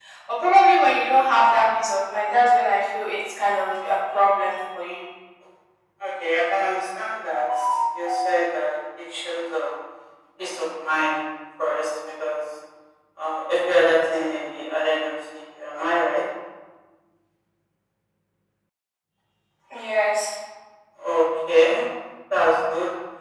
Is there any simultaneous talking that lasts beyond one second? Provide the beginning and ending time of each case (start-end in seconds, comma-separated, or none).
none